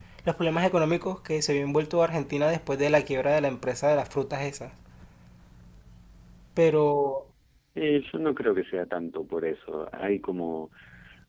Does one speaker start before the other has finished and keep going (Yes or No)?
No